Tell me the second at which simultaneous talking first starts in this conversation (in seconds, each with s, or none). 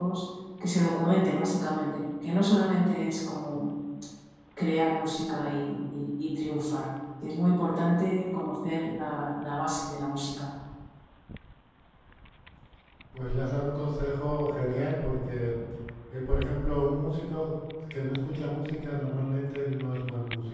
none